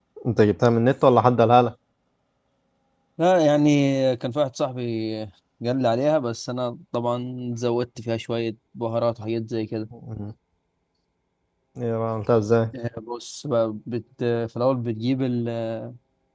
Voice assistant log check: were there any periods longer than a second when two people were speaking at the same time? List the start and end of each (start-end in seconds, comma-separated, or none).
none